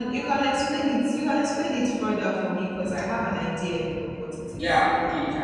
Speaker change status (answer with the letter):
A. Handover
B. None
A